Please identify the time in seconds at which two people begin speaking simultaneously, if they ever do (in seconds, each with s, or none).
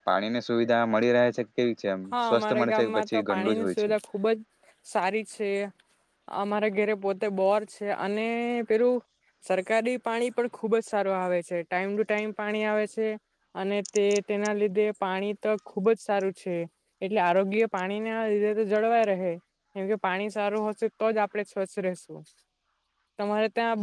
2.1 s